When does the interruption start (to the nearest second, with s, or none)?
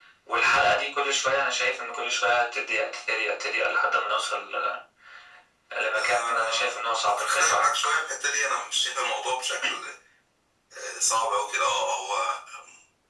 6 s